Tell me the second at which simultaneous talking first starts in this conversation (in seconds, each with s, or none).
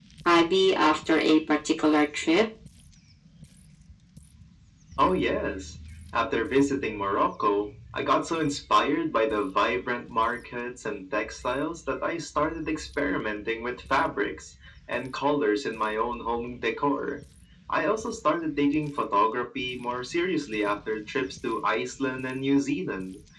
none